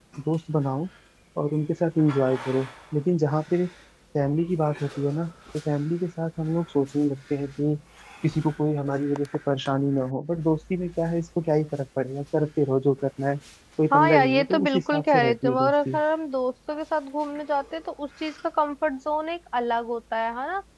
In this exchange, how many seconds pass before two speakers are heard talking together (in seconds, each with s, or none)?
13.9 s